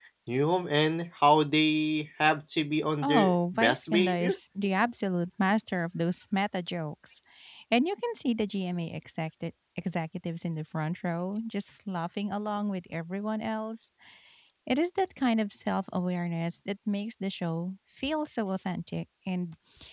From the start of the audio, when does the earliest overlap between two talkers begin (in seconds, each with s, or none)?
3.0 s